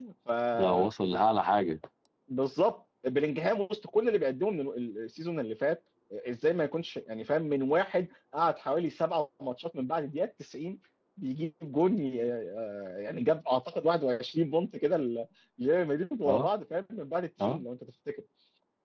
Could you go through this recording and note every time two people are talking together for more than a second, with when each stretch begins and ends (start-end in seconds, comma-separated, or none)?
none